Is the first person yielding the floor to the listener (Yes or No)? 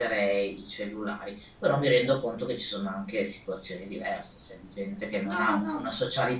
No